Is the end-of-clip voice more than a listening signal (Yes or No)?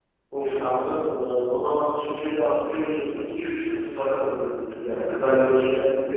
No